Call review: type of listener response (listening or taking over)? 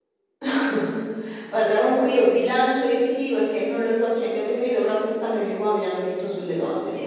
taking over